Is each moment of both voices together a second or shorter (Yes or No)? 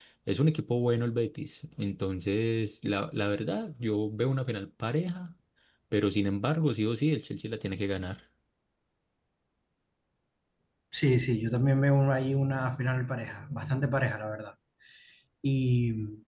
Yes